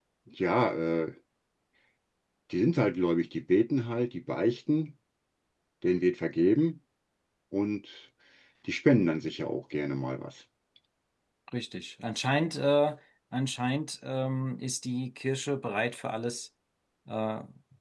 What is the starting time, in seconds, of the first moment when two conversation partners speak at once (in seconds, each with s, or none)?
none